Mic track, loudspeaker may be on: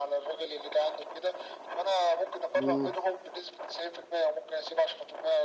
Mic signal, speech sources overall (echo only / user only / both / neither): both